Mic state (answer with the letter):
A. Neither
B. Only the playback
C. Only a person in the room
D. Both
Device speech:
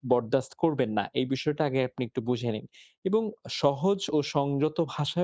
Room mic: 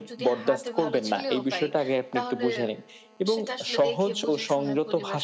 D